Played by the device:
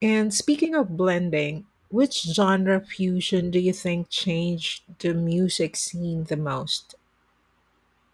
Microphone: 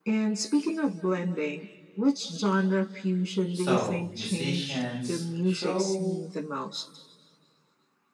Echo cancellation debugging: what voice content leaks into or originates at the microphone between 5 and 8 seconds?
both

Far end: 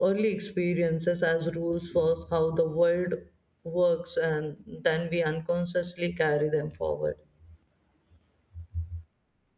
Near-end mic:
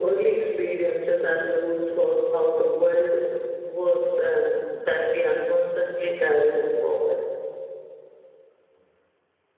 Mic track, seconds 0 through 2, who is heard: echo only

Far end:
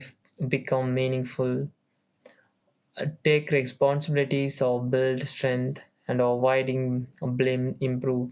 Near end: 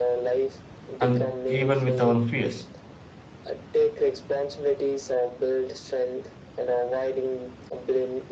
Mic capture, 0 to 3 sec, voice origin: both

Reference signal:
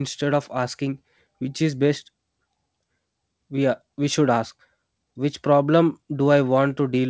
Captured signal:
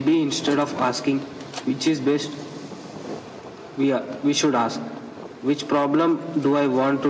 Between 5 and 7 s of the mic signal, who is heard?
echo only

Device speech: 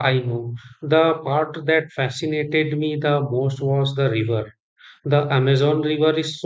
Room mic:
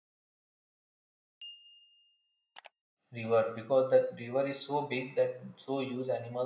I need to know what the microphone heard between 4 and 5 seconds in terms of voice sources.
user only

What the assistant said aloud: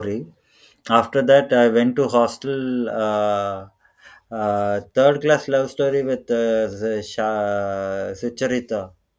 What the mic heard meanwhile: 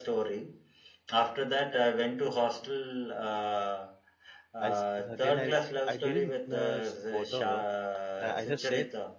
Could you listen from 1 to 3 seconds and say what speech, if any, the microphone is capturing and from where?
echo only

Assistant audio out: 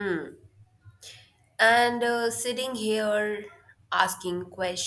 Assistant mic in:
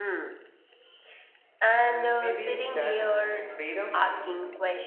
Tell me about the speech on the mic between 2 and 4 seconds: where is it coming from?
both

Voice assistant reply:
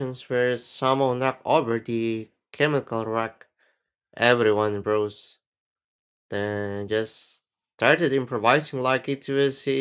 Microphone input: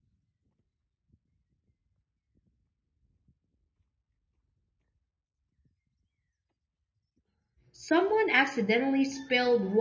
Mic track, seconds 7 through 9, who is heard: user only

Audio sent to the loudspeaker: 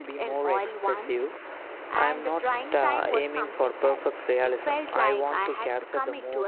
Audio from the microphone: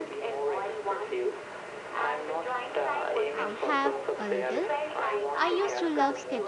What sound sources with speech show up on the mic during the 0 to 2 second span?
echo only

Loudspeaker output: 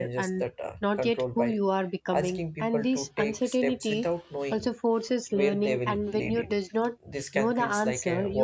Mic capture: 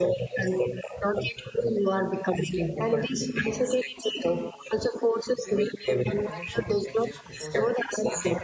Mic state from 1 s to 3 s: echo only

